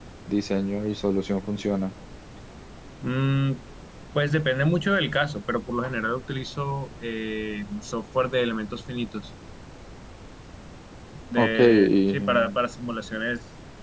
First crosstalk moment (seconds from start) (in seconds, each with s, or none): 11.4 s